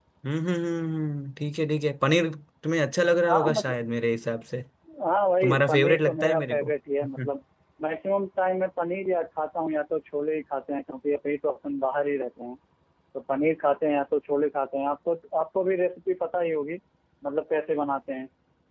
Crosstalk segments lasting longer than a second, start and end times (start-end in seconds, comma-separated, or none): 5.4-6.7